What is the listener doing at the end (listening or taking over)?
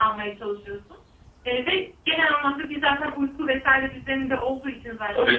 taking over